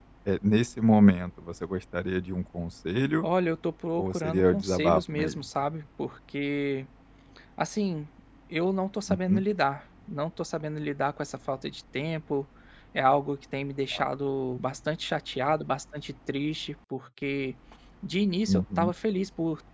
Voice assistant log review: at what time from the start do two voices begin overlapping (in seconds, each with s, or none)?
4.0 s